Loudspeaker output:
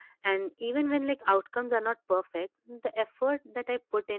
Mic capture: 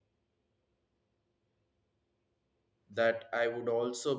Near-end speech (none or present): present